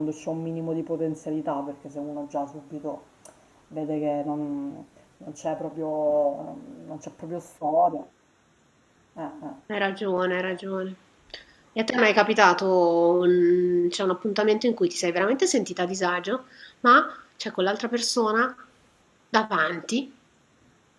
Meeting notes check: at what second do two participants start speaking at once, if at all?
none

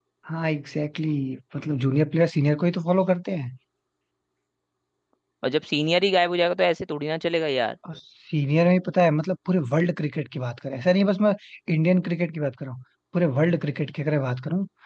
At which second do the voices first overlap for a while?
none

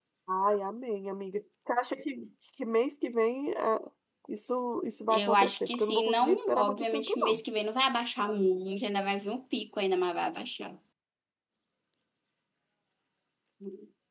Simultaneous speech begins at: 5.1 s

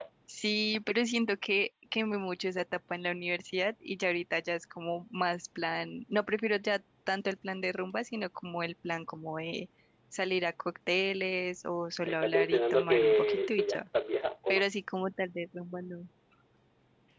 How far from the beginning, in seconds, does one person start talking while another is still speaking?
12.1 s

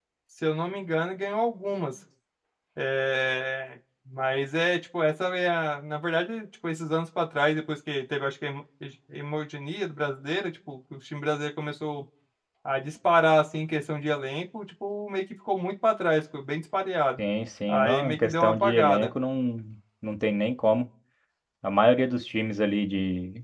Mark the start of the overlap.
17.7 s

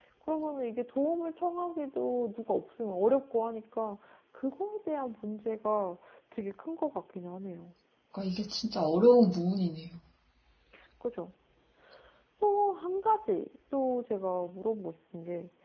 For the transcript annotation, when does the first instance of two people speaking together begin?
none

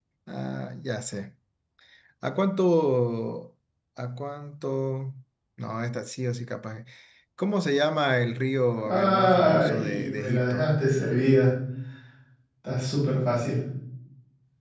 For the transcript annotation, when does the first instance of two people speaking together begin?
8.8 s

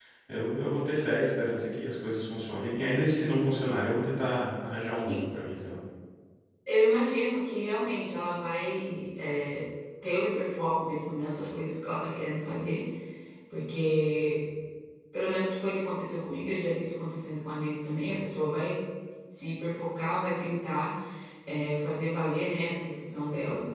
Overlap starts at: none

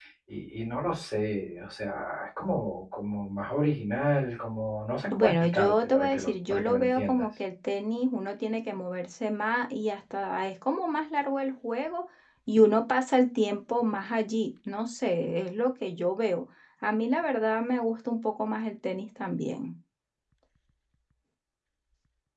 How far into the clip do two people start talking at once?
5.1 s

